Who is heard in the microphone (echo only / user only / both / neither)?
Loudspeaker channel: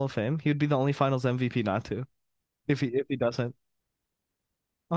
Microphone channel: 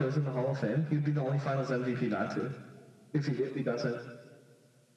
echo only